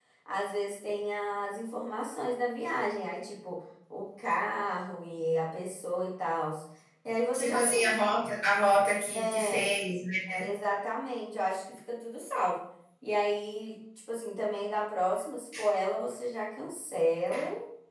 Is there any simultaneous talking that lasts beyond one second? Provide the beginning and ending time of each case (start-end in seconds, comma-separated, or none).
none